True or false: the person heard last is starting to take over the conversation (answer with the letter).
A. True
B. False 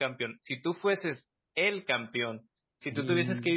B